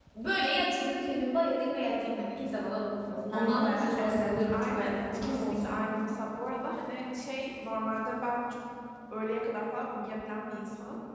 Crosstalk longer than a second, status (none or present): present